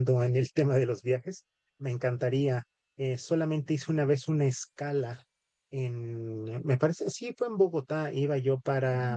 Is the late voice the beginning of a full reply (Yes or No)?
No